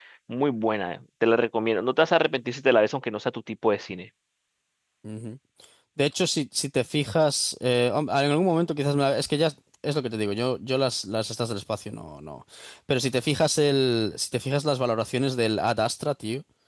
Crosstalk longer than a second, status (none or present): none